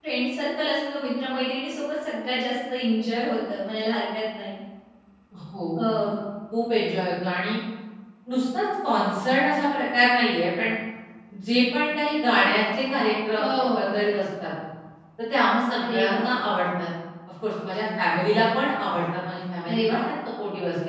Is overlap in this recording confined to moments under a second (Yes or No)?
Yes